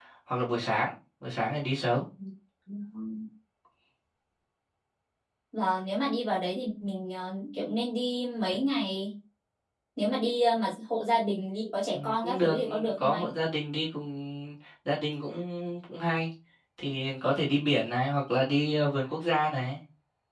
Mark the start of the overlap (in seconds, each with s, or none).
11.9 s